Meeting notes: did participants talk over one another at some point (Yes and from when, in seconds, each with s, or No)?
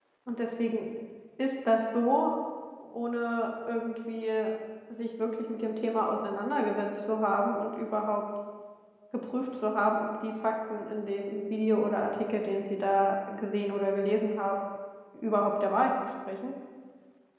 No